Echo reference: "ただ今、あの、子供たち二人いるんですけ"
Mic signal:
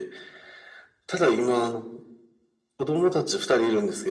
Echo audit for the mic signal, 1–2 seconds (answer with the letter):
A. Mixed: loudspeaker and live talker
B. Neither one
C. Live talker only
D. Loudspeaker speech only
D